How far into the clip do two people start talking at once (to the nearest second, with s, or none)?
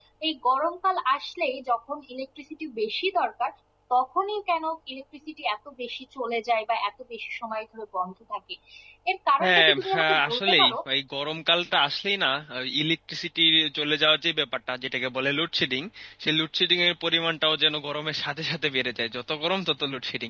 9 s